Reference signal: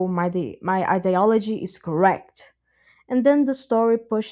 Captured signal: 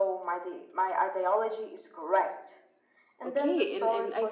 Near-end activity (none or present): present